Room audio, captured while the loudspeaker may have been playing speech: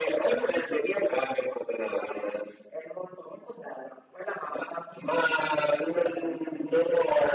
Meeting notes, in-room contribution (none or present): none